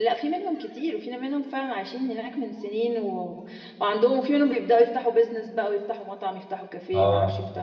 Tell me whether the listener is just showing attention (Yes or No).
No